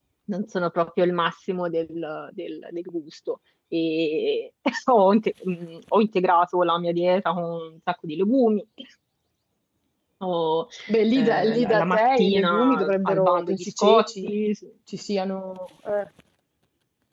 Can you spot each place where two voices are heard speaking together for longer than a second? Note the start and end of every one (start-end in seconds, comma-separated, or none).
11.1-14.3